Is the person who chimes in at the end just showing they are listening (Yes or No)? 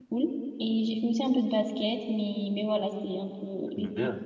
No